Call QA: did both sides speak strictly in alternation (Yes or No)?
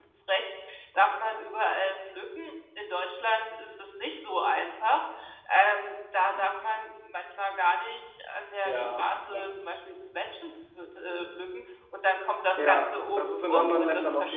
No